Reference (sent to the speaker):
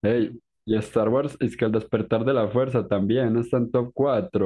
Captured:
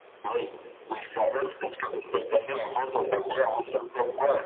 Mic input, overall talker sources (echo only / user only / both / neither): echo only